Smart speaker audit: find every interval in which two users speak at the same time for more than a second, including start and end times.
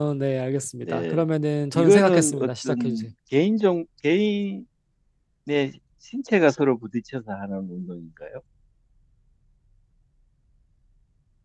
1.7-3.0

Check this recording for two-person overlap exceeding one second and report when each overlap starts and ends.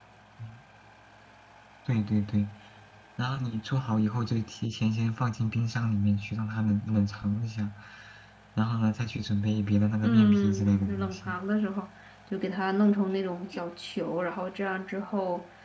10.0-11.4

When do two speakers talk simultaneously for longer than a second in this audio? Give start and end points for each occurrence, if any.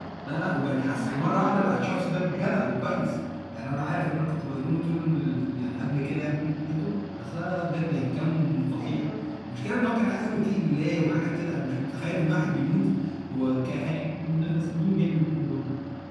1.0-2.6

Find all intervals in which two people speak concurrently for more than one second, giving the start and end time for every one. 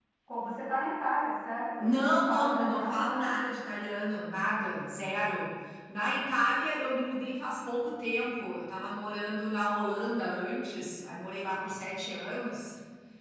1.8-3.3

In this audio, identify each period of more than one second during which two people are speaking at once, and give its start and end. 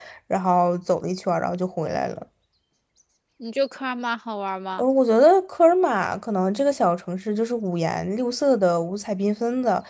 none

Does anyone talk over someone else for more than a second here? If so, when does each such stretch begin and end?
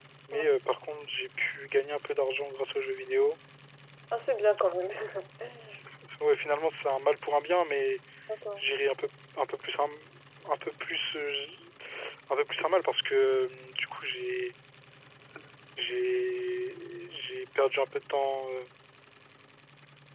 none

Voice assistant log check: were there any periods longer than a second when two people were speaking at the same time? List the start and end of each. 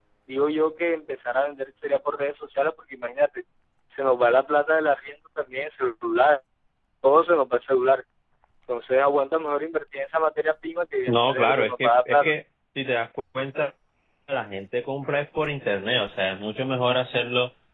11.1-12.3

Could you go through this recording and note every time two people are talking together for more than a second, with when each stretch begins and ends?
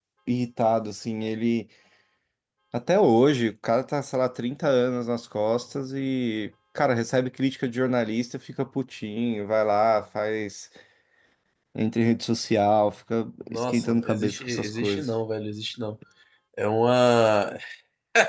13.5-15.1

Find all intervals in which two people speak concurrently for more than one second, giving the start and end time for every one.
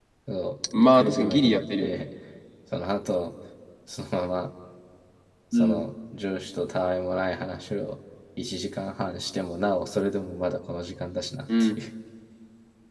0.8-2.0

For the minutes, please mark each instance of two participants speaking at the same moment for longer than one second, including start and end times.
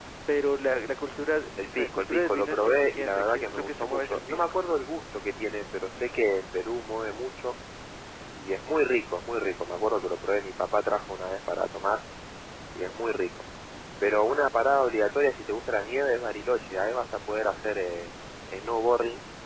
1.8-4.6

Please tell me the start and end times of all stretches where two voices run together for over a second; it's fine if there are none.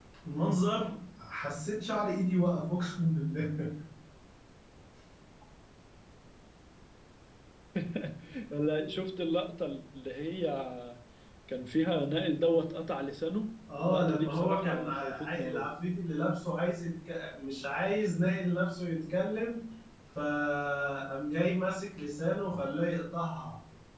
13.8-15.7

